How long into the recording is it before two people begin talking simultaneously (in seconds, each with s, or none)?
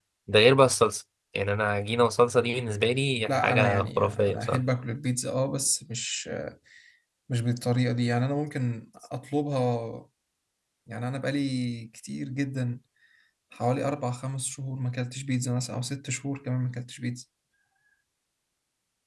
3.3 s